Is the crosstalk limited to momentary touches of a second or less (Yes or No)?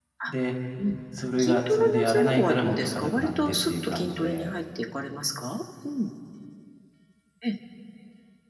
No